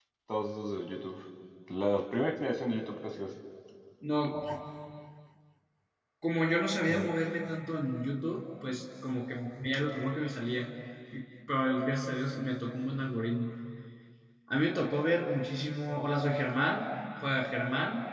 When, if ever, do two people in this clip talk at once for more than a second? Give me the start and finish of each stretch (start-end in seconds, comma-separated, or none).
none